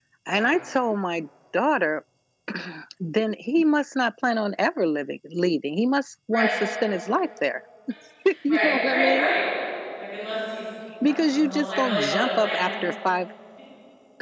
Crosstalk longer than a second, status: present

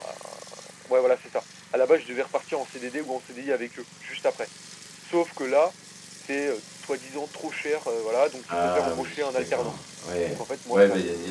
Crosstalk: present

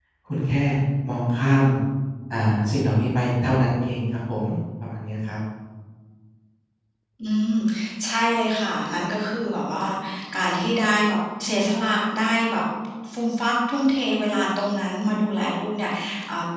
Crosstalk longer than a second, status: none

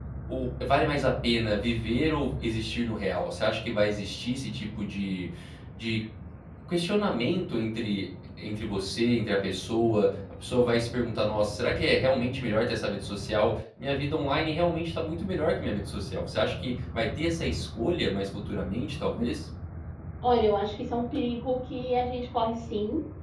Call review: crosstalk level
none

